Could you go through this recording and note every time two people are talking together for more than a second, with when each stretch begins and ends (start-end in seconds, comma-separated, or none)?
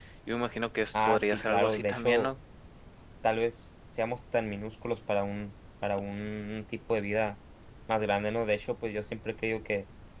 0.9-2.3